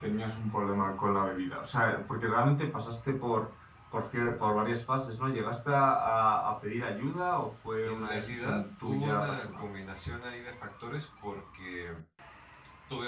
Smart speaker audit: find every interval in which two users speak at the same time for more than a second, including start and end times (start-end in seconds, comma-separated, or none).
7.8-9.6